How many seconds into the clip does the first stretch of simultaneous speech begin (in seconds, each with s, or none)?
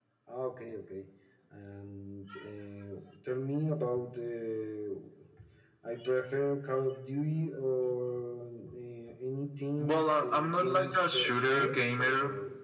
9.8 s